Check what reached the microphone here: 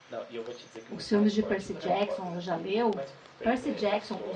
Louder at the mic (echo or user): user